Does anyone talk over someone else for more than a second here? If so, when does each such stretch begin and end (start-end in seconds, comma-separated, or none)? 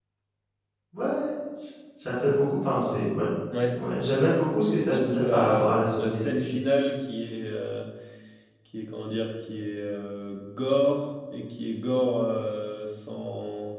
4.0-6.2